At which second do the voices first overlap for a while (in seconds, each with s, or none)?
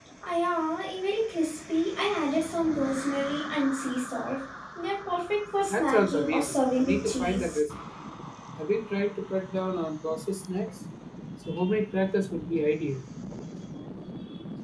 5.7 s